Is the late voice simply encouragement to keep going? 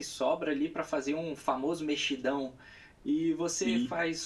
Yes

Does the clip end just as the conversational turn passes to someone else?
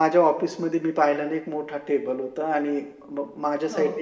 No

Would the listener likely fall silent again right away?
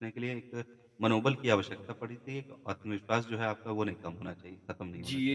No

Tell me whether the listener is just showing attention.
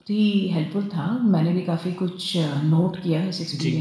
Yes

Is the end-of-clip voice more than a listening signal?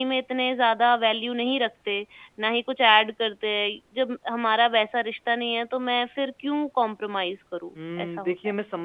Yes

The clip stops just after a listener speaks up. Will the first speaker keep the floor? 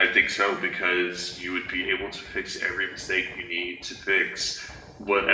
Yes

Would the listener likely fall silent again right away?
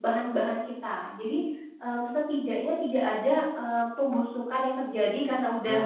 Yes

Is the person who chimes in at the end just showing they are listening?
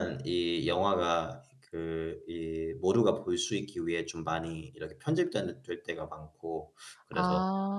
Yes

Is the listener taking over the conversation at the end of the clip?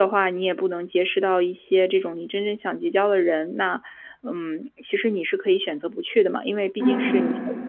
No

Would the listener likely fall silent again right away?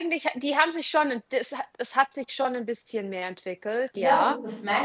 No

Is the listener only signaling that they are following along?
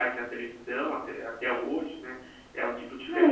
No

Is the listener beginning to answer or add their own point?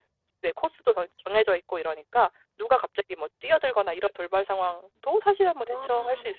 No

